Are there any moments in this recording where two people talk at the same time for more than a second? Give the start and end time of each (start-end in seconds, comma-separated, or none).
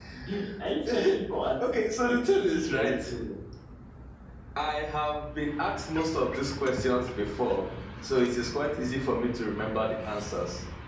1.7-2.9